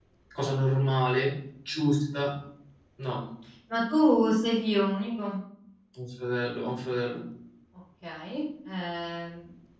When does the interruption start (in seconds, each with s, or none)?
none